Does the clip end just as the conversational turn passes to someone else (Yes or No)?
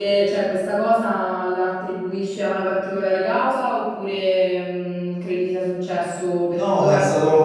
Yes